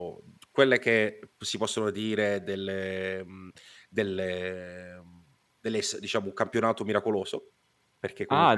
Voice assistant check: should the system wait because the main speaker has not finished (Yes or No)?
No